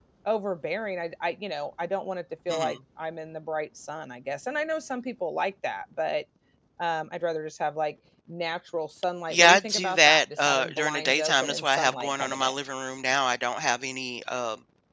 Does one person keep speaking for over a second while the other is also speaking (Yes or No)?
Yes